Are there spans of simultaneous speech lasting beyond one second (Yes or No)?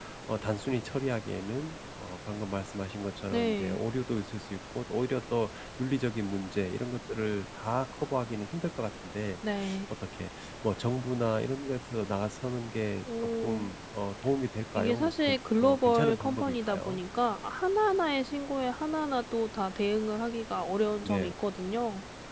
Yes